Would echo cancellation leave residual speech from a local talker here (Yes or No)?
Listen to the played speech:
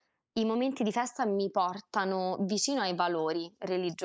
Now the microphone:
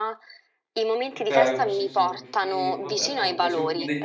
Yes